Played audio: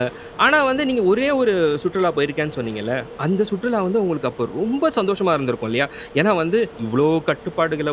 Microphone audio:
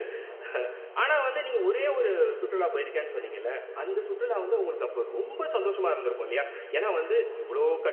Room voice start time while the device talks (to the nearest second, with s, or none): none